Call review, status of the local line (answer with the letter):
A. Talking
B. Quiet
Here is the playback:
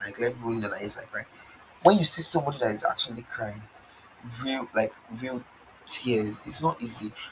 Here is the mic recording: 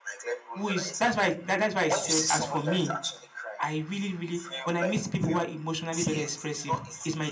A